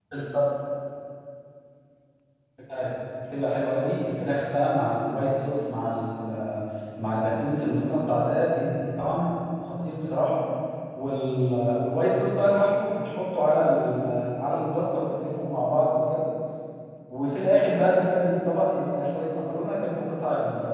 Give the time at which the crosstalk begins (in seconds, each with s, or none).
none